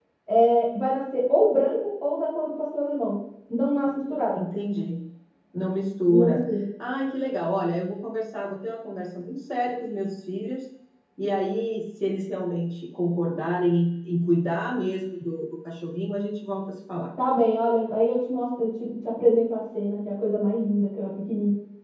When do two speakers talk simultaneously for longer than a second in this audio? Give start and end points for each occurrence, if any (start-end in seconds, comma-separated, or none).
none